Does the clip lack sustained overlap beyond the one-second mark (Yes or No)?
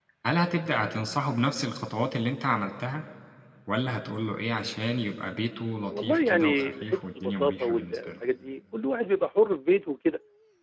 No